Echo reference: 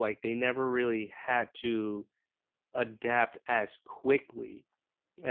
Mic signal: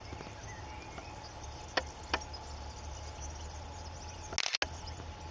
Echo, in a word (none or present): none